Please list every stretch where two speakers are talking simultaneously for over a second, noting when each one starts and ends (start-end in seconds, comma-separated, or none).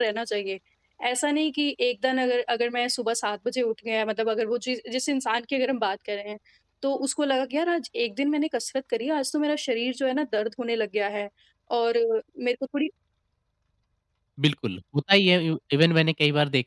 none